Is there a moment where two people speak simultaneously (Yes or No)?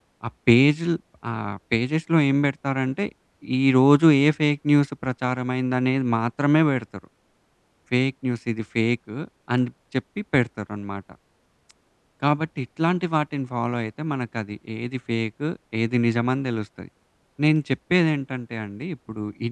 No